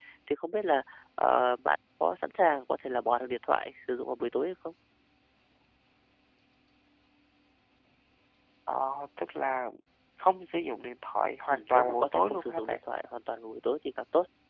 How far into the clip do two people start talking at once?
11.5 s

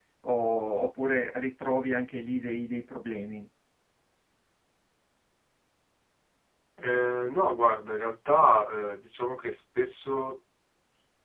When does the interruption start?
none

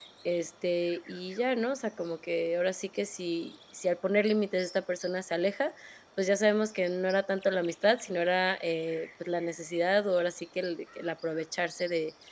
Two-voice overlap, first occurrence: none

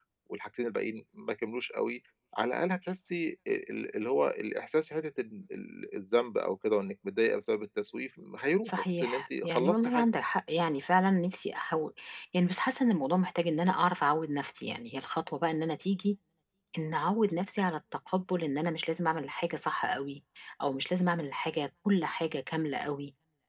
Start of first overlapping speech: 8.6 s

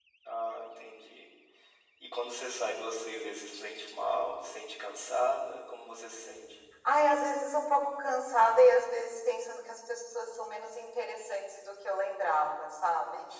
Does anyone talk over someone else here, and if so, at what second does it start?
none

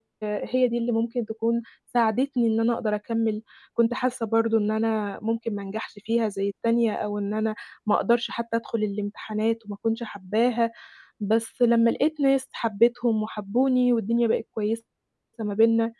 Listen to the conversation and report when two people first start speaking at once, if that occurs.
none

